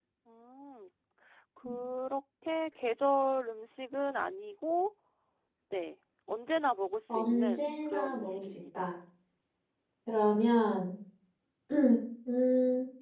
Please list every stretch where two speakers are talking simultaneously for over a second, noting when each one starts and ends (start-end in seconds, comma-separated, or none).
7.1-8.9